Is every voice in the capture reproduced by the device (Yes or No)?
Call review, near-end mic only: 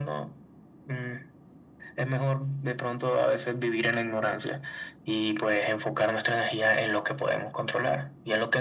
Yes